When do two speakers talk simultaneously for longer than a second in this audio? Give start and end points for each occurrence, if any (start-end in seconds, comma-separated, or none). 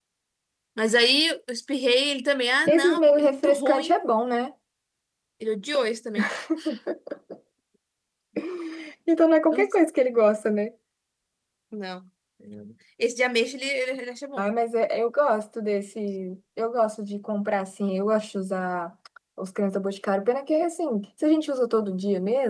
2.7-4.0